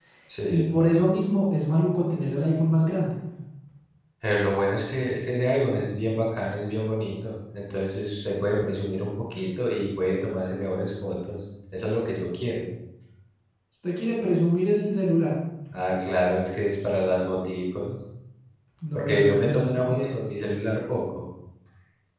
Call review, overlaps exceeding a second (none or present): present